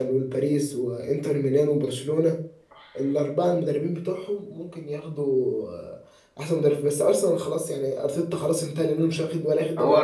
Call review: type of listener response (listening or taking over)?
taking over